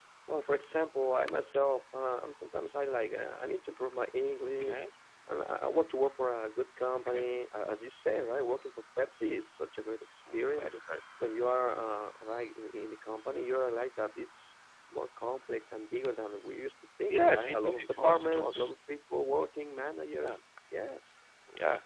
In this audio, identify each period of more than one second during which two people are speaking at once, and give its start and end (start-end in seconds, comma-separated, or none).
17.1-18.7